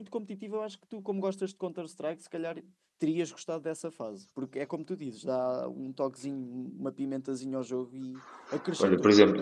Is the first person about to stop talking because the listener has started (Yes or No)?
Yes